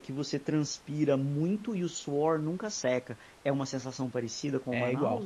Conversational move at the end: taking over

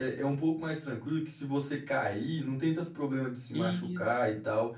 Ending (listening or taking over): listening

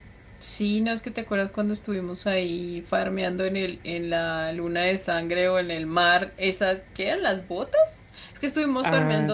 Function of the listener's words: listening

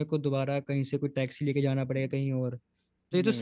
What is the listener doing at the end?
listening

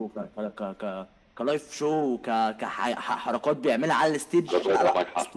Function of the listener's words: taking over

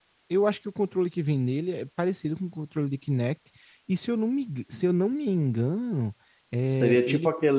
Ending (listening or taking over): taking over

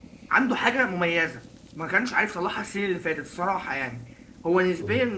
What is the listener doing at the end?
listening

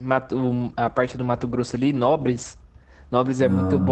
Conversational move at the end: listening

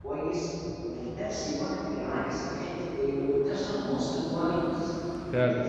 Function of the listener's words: listening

